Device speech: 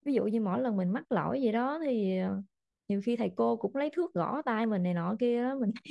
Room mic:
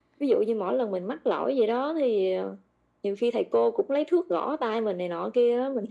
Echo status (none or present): present